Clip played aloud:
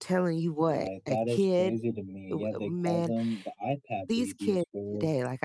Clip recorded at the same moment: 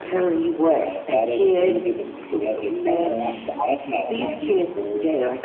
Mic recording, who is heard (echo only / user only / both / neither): both